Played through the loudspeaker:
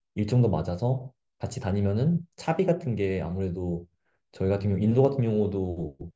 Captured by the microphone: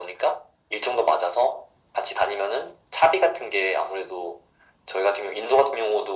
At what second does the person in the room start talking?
none

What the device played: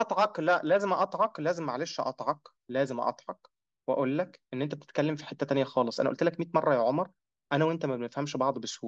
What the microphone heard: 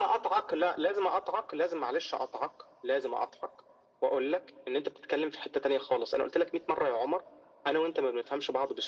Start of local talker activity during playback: none

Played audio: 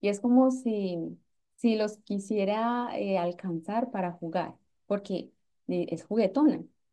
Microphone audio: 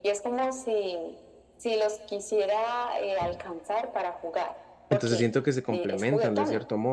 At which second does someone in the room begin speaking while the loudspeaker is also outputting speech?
4.9 s

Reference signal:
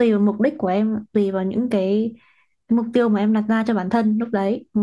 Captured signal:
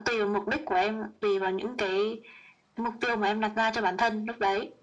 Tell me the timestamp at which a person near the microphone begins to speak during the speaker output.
none

